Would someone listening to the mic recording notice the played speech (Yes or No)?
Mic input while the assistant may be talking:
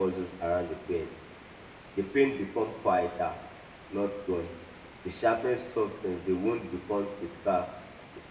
No